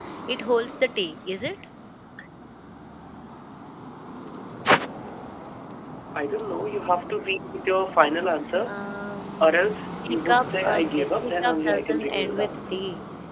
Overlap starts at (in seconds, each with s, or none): 10.1 s